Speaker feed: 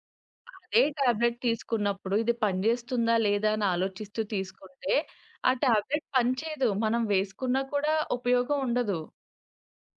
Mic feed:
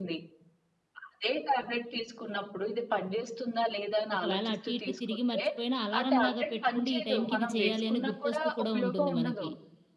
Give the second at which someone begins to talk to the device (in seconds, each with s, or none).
4.2 s